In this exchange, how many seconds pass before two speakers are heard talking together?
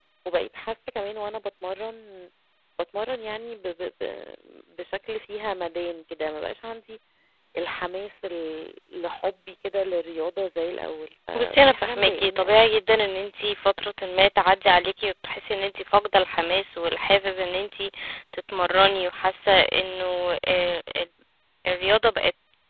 11 s

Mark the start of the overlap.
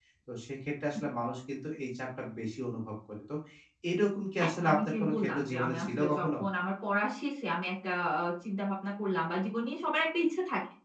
4 s

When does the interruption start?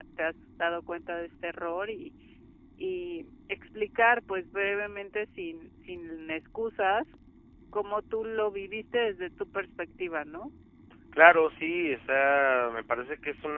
none

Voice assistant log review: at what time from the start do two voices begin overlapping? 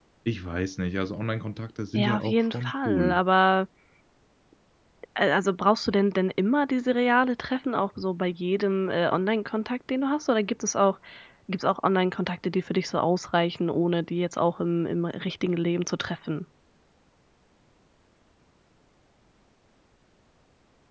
2 s

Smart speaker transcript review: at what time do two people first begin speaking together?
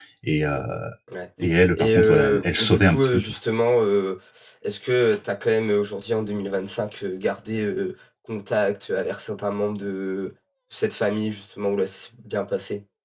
2 s

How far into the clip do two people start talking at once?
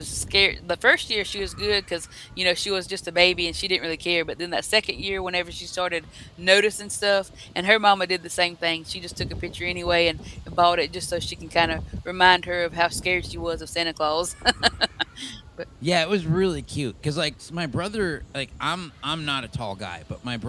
none

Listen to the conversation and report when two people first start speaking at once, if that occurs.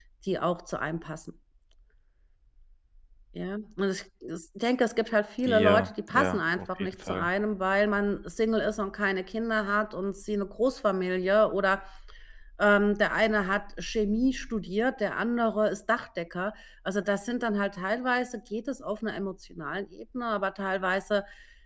5 s

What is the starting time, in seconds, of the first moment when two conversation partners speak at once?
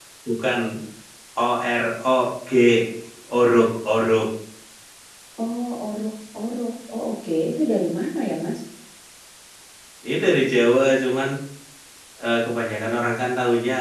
none

